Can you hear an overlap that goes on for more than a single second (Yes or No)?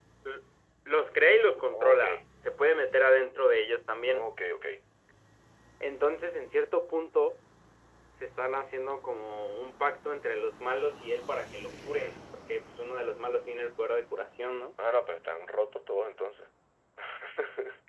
No